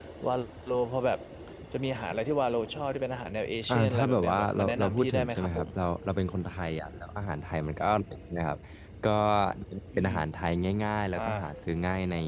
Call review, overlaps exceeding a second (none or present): present